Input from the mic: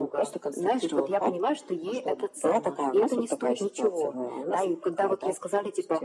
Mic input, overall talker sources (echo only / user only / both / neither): echo only